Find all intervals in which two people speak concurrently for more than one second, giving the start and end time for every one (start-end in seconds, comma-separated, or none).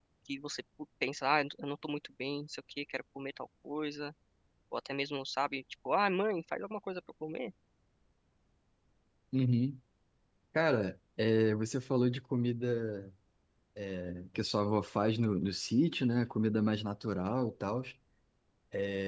none